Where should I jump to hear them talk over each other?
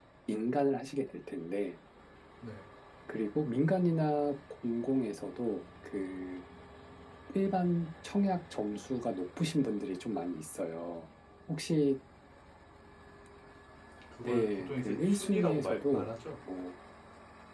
14.2 s

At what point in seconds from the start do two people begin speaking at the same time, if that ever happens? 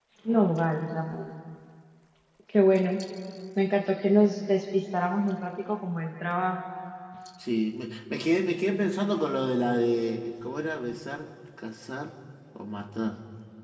none

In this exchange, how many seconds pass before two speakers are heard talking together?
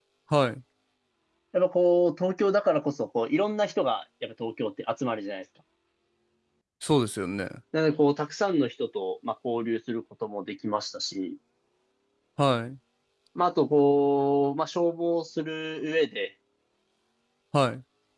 none

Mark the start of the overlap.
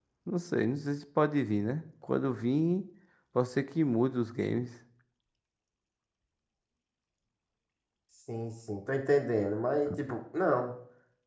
none

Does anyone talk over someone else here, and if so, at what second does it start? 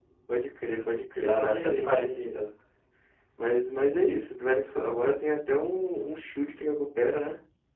1.1 s

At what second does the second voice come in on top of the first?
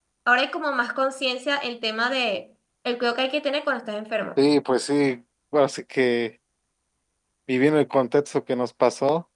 none

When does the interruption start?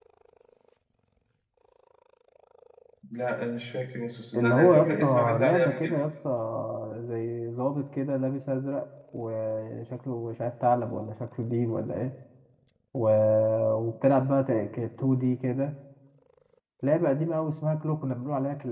4.3 s

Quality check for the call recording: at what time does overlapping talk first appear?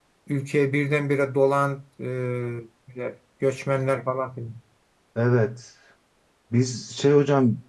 none

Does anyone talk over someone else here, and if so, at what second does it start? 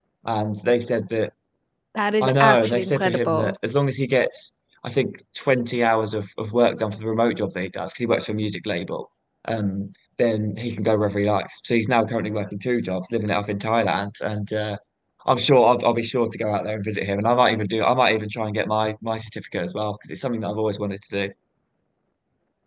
2.2 s

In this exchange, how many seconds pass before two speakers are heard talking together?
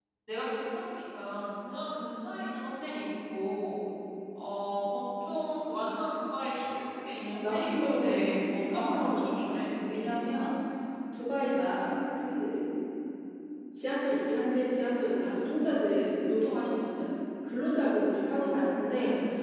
7.4 s

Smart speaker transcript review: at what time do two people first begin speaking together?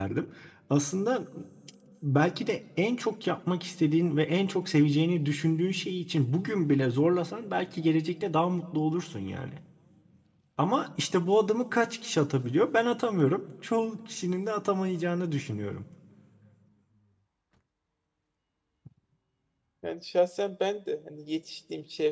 none

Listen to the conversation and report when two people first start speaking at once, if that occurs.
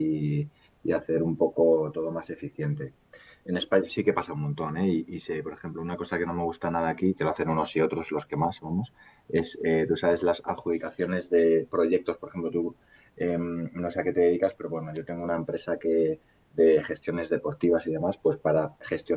none

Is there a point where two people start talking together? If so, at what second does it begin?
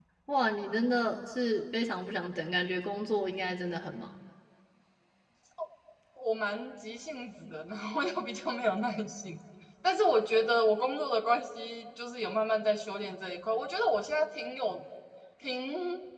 none

